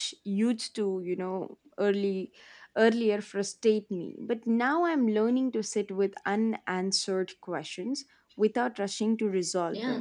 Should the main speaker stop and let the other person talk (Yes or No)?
Yes